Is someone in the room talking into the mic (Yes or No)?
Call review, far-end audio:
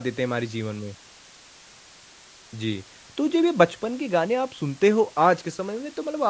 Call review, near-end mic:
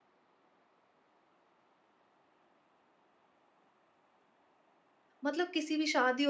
Yes